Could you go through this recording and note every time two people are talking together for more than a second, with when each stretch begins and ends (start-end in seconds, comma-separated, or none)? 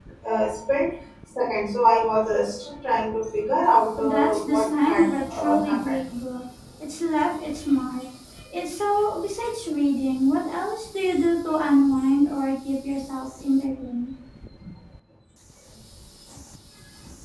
4.0-6.0